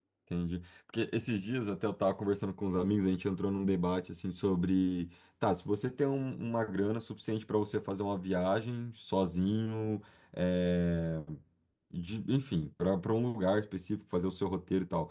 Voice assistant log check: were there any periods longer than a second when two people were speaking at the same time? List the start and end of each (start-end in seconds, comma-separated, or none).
none